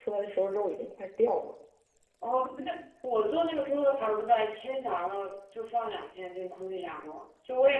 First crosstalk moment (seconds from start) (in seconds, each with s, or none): none